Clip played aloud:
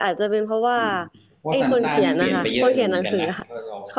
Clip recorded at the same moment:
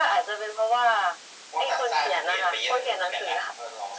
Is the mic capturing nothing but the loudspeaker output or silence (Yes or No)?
Yes